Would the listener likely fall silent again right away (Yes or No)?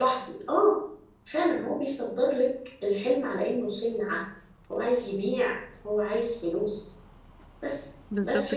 Yes